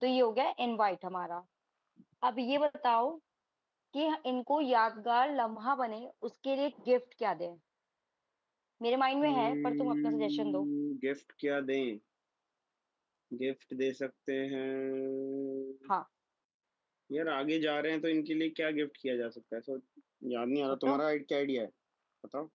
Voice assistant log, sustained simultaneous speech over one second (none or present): present